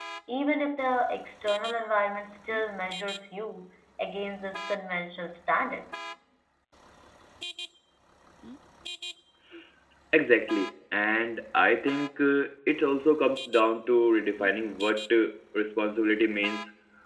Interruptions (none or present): none